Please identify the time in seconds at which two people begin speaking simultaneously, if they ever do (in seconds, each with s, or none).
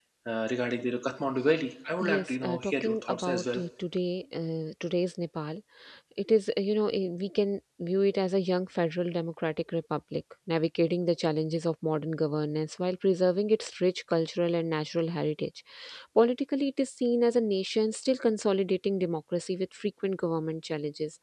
2.0 s